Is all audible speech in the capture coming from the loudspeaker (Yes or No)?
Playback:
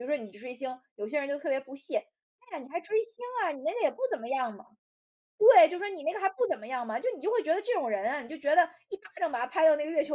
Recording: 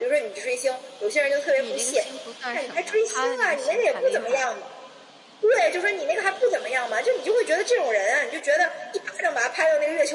No